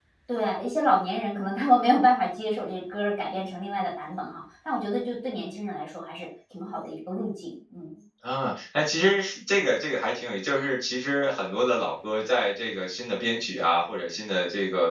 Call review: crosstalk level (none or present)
none